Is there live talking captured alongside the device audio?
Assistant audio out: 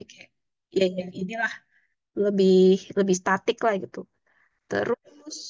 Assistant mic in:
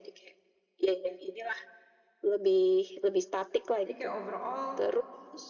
Yes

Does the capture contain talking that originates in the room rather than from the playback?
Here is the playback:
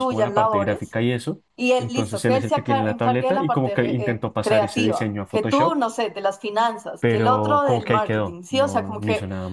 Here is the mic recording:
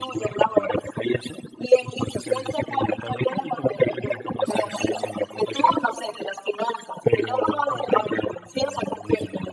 No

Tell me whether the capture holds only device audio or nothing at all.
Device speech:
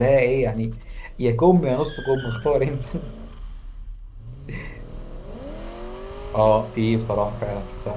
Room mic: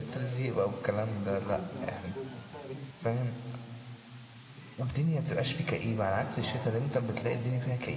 No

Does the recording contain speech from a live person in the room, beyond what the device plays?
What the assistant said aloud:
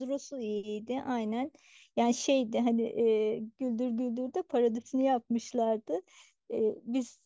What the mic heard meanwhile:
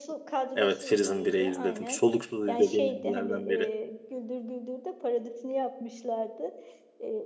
Yes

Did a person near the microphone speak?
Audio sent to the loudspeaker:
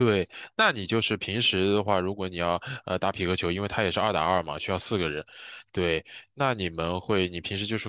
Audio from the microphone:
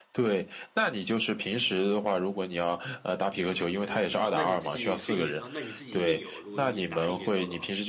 Yes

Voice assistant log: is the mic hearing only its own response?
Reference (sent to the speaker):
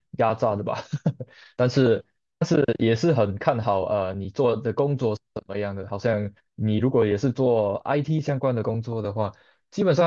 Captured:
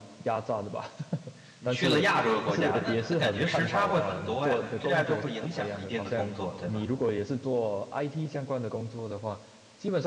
No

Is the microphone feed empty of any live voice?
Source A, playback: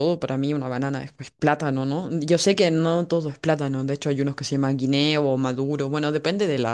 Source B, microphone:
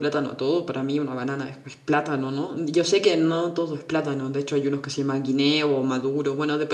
Yes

